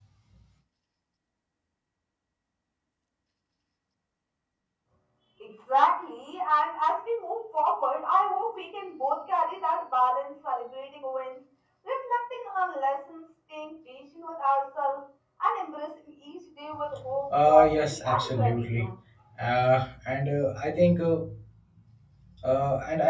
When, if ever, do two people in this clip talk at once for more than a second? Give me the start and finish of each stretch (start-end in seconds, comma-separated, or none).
17.4-18.9